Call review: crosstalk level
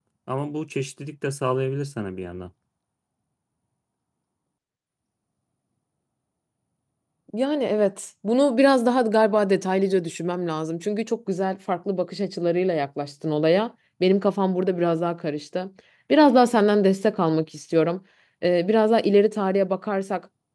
none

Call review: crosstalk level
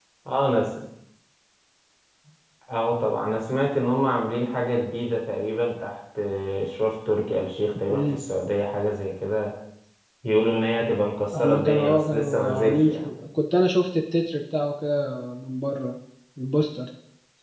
present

